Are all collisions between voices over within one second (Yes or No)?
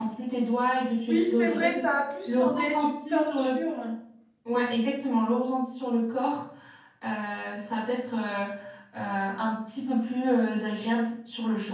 No